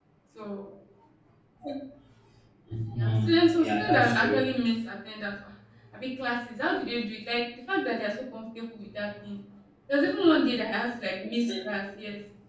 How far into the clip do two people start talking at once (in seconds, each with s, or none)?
3.0 s